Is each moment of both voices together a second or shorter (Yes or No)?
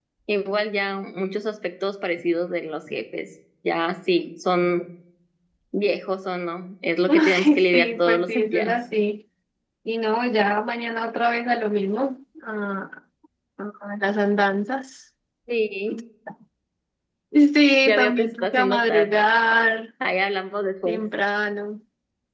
No